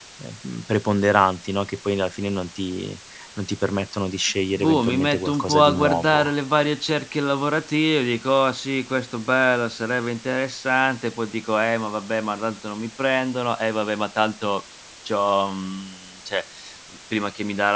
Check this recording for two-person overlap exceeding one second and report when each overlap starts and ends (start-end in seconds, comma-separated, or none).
4.5-6.3